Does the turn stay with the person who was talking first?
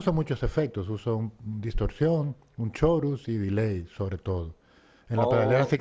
No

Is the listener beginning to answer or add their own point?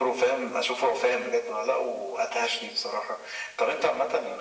No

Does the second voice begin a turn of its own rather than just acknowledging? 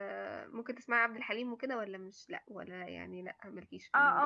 Yes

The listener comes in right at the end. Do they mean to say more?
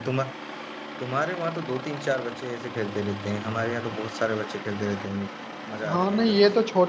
Yes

